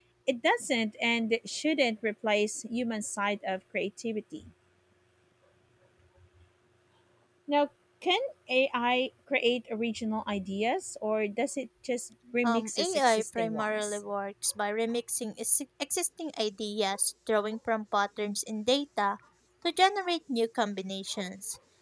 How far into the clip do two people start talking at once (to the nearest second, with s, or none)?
12 s